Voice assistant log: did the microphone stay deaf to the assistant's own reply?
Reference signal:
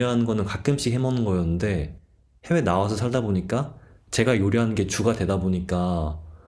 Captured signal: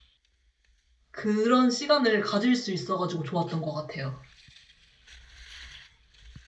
Yes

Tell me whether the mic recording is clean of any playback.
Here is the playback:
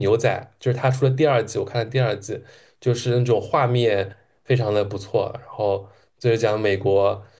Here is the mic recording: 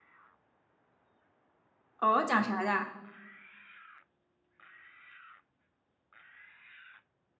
Yes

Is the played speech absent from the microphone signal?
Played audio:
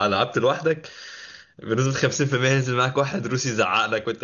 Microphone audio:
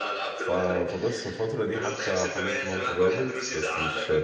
No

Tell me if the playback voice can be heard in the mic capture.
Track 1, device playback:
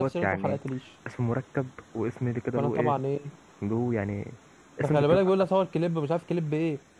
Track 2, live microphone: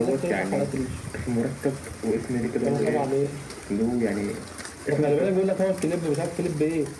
Yes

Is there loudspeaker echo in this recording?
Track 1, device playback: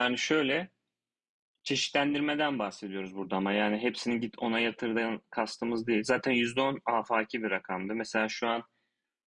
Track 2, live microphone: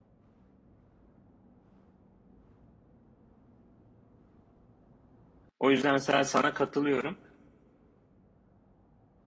No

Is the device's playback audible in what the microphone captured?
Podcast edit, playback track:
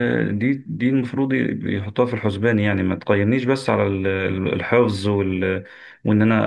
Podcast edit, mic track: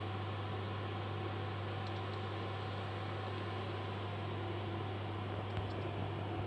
No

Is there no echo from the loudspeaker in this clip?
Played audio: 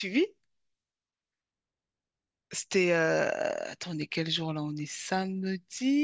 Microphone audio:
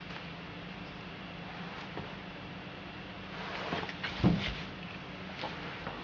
Yes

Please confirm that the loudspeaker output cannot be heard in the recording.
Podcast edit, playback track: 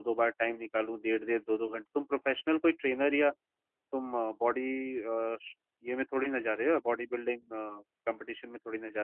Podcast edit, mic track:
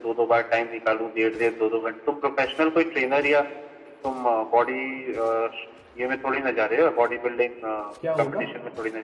No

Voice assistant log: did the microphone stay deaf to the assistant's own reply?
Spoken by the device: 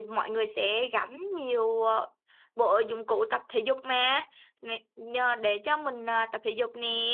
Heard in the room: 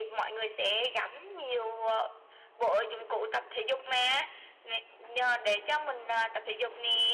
No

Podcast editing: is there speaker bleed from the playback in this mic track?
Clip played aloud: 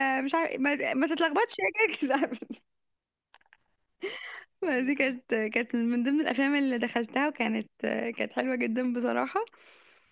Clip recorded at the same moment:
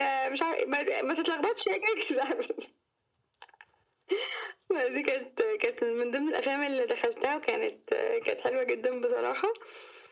Yes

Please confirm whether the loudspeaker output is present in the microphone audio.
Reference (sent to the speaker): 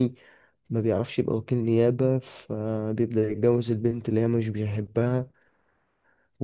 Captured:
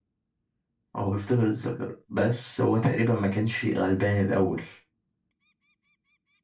No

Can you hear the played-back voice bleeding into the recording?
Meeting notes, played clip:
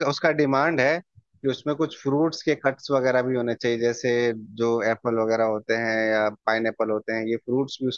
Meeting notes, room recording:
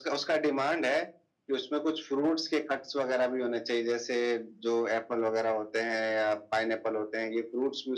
Yes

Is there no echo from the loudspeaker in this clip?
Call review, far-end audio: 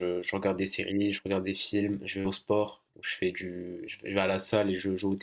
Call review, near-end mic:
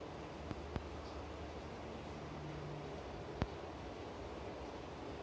Yes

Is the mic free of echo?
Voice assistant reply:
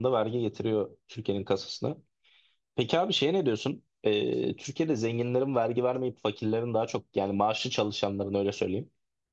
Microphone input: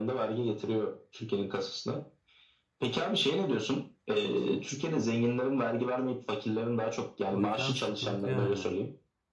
No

